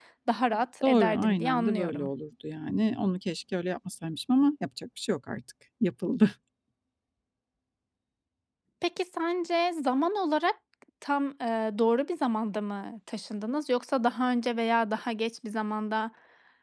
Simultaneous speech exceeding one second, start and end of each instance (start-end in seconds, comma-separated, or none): 0.8-2.1